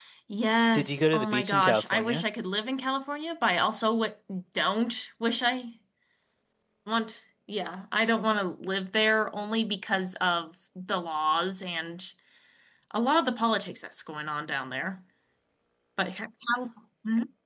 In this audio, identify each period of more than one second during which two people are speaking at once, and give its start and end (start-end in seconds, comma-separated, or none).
0.7-2.2